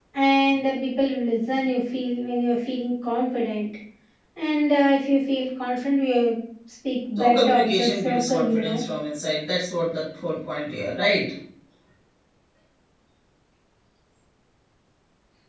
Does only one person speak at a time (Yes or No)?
No